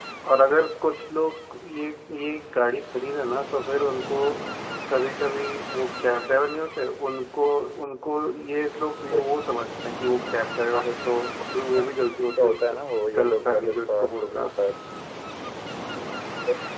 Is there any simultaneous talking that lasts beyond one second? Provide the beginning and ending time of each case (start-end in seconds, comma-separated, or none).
13.2-14.6